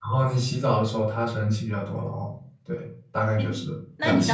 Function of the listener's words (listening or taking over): taking over